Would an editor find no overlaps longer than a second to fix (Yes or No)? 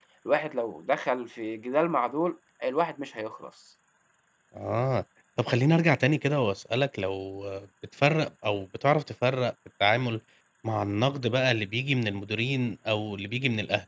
Yes